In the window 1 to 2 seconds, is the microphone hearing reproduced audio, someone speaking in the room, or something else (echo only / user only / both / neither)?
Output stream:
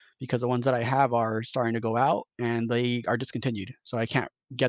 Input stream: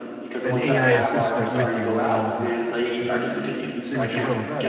both